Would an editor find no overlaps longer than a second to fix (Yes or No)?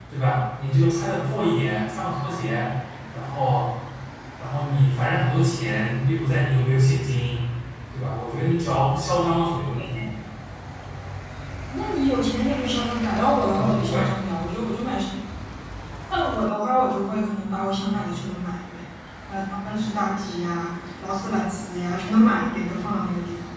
Yes